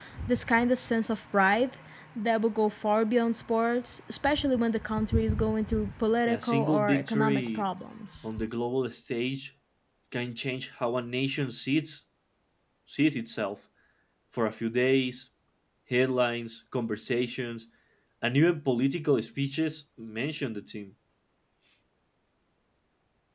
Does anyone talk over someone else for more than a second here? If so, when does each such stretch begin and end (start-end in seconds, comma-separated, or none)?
6.3-7.6